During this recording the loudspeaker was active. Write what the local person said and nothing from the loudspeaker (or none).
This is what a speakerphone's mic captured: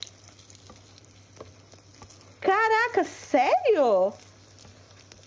Caraca, sério?